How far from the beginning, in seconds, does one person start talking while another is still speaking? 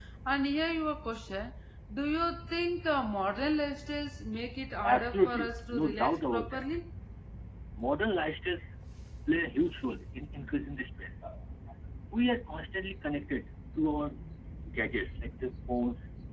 4.8 s

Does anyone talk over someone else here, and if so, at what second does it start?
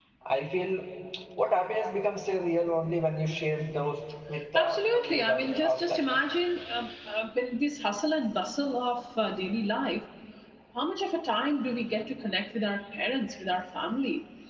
4.5 s

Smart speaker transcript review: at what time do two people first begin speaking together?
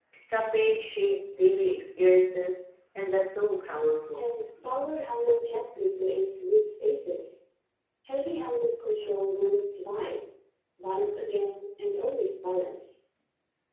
none

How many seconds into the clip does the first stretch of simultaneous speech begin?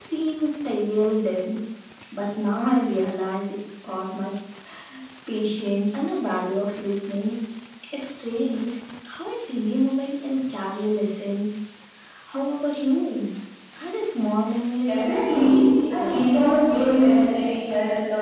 14.8 s

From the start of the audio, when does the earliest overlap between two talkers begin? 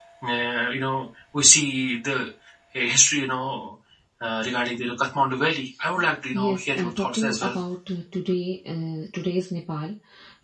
6.3 s

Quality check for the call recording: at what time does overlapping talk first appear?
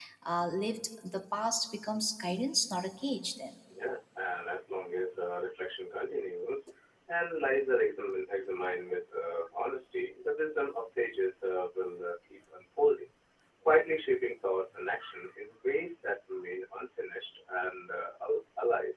none

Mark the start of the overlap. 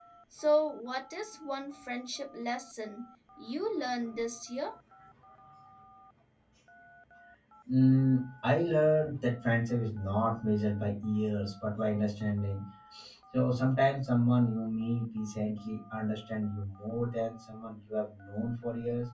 none

